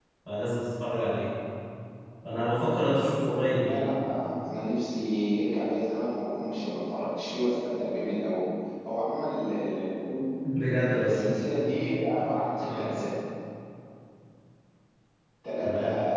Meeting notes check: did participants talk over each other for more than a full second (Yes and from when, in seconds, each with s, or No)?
No